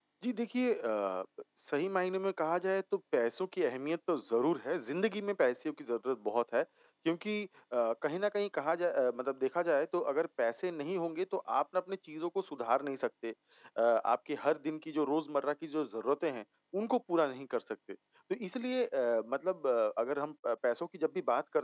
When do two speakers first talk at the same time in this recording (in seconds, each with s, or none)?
none